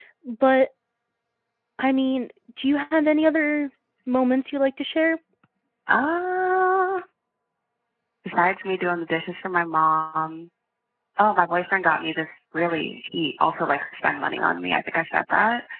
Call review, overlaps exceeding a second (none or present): none